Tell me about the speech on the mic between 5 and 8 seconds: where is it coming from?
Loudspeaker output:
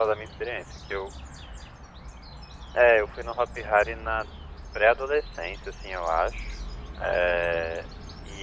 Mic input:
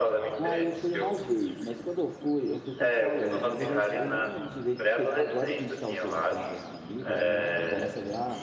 both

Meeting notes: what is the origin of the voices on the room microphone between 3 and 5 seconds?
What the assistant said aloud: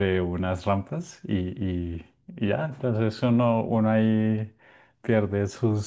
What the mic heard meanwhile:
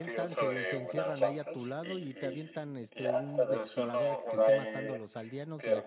both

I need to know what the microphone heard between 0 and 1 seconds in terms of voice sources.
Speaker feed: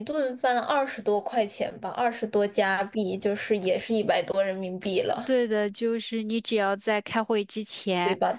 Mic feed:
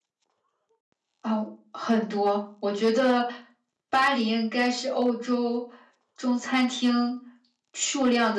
neither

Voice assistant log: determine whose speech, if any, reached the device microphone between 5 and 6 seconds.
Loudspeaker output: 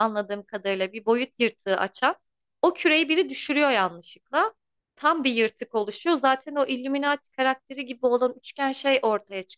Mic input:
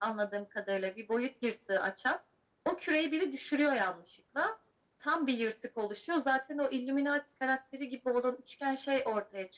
echo only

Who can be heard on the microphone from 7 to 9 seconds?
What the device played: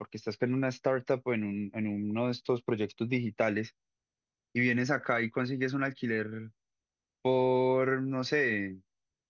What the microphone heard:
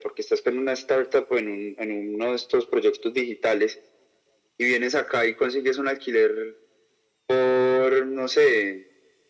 echo only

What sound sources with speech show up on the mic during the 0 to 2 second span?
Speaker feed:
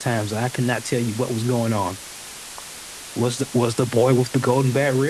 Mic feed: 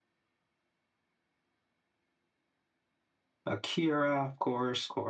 neither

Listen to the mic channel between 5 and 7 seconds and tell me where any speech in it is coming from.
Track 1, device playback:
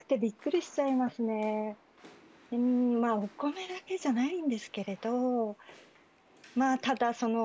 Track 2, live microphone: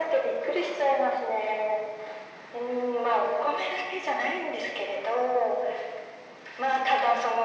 echo only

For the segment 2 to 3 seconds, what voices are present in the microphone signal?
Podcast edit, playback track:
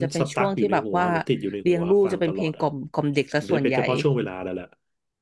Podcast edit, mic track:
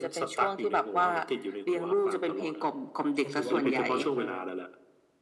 echo only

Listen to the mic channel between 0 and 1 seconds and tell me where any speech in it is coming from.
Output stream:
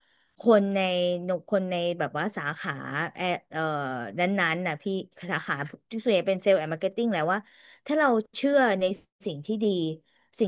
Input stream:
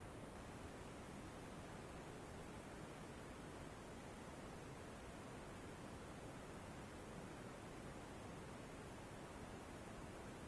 neither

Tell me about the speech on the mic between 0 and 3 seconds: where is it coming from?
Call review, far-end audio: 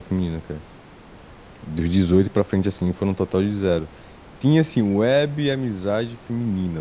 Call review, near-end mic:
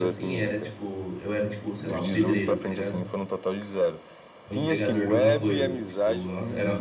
both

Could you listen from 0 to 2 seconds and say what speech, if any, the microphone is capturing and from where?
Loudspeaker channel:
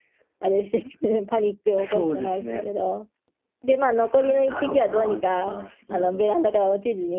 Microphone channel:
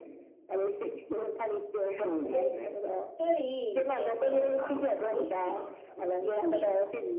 echo only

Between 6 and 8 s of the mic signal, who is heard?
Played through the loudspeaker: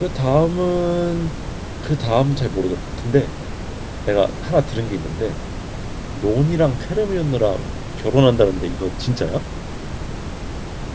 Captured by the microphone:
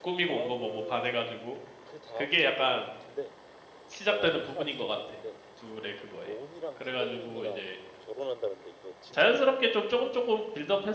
both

